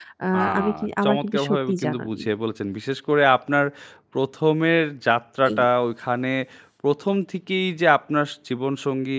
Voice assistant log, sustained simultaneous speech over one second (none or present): present